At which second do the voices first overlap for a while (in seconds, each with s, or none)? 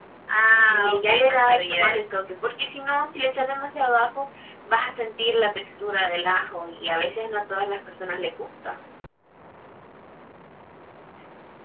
0.6 s